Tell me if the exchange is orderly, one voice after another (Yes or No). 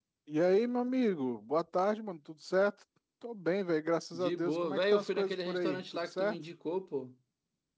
No